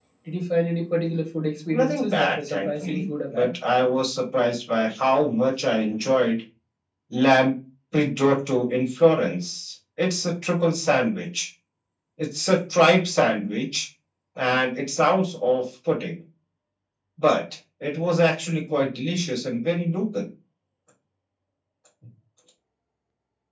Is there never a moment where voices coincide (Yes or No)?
No